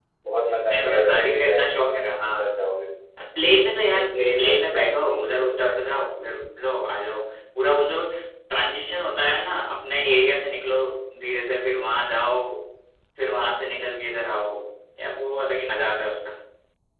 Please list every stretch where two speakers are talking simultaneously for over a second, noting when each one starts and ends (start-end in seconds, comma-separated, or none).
0.7-2.5, 3.8-5.8